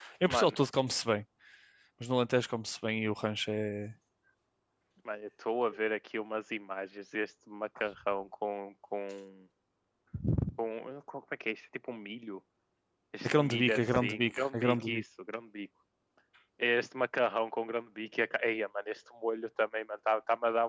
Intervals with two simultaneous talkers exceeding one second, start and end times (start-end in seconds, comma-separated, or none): 13.3-15.0